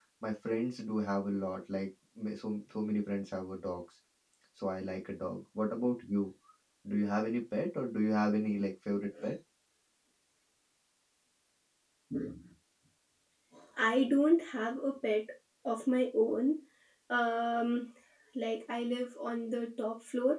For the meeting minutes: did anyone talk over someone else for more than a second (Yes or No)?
No